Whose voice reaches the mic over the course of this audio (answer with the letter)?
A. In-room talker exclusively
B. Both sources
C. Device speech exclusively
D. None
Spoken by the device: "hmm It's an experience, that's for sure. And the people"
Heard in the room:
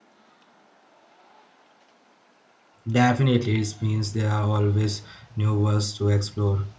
A